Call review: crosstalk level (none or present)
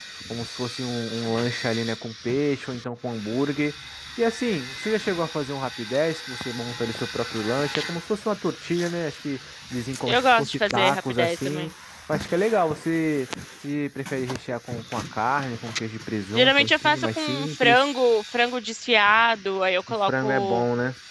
present